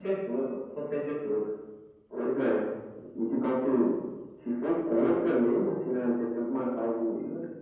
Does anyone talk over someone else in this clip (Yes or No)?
No